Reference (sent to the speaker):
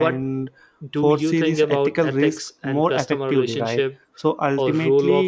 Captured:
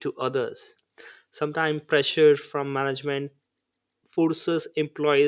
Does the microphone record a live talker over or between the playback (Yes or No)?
Yes